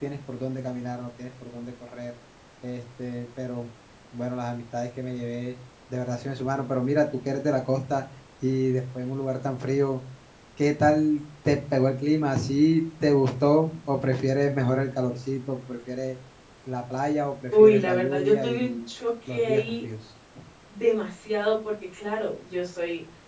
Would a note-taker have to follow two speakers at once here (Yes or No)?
Yes